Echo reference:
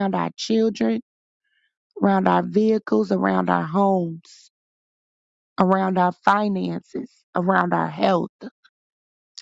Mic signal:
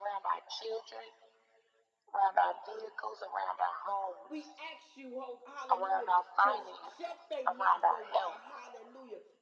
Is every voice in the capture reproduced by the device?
No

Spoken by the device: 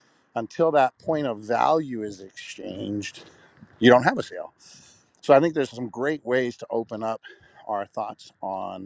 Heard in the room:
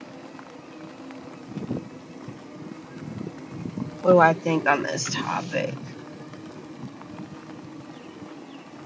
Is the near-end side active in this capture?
Yes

